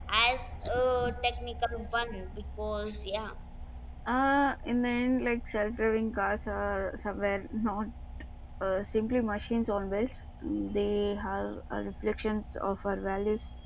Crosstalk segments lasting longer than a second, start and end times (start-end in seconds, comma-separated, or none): none